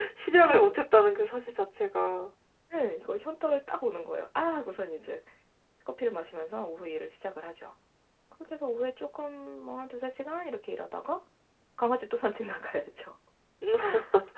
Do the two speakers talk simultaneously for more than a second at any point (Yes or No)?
No